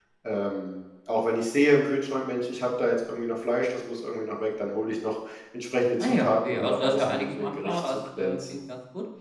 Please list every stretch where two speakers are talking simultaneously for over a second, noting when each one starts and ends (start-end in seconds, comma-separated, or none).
6.0-8.6